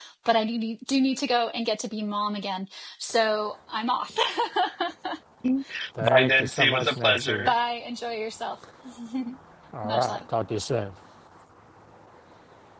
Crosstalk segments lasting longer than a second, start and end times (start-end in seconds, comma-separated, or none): 6.0-7.5